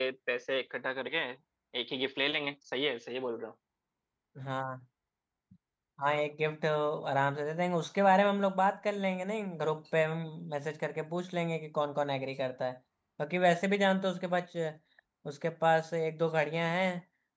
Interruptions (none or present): none